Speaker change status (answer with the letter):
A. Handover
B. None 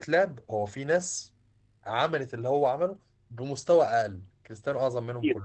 A